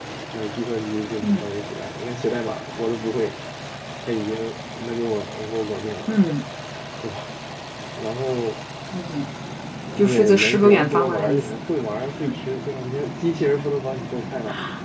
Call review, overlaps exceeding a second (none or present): present